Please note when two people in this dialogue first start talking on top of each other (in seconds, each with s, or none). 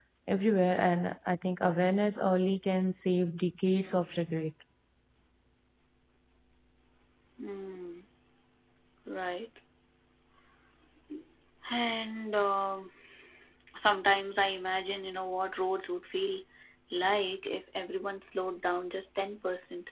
none